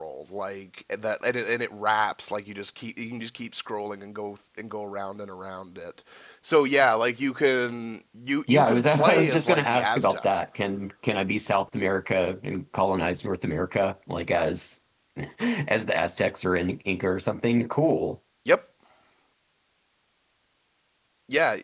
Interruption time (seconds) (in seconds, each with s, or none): 8.5 s